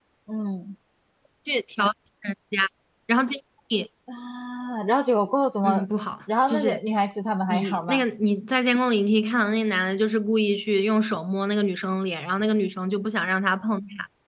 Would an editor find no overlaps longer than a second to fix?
Yes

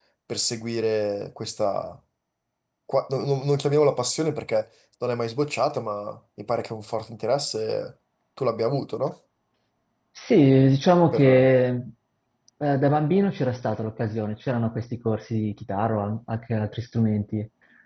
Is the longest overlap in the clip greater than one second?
No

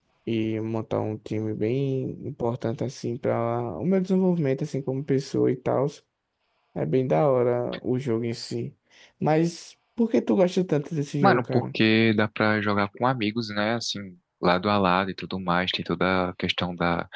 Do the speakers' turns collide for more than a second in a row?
No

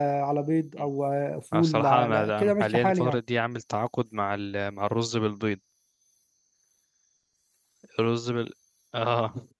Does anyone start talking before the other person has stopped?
Yes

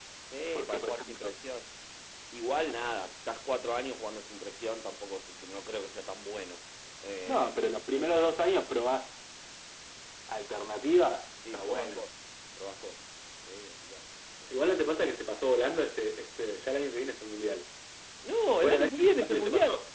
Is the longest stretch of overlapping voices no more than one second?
No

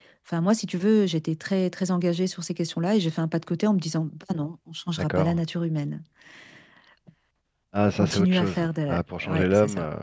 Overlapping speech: Yes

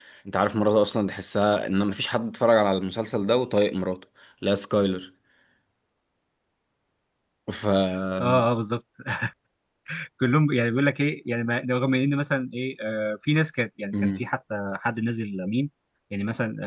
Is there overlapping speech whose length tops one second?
No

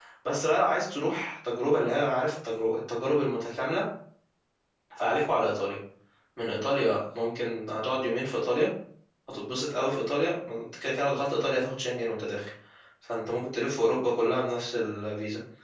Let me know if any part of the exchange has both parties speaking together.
No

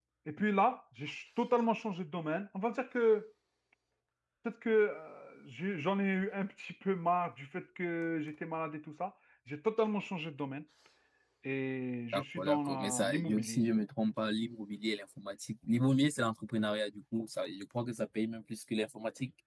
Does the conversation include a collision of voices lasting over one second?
Yes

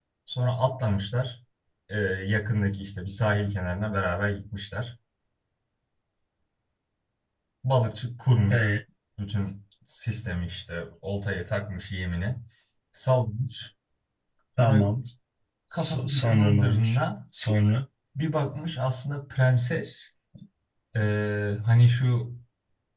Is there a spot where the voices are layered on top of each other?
Yes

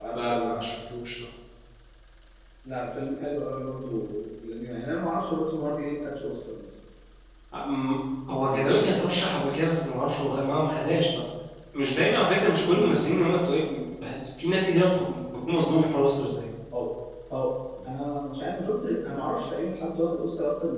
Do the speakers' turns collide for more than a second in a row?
No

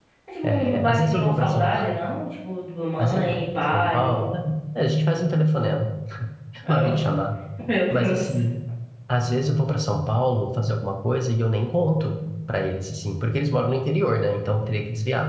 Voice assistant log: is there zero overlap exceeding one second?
No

